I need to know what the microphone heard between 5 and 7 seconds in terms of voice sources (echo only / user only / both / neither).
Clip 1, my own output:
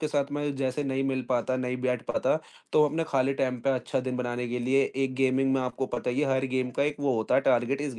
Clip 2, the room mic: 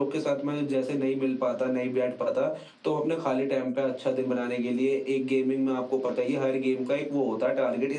echo only